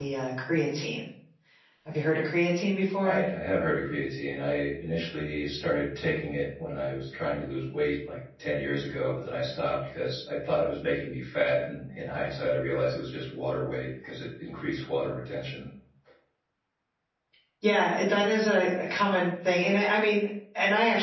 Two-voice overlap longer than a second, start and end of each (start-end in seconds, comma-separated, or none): none